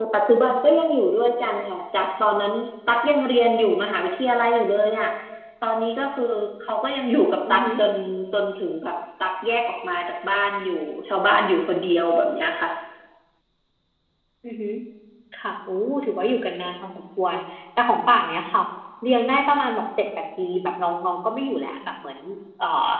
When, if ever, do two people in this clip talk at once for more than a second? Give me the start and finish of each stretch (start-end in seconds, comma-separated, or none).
none